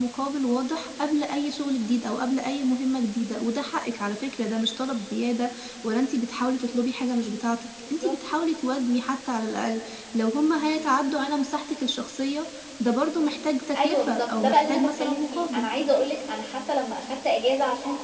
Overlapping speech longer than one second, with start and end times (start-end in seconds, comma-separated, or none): 13.8-15.7